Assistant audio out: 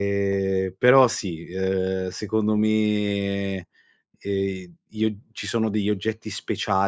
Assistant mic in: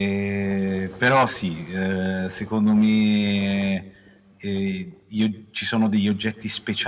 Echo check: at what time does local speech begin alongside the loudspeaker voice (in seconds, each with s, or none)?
none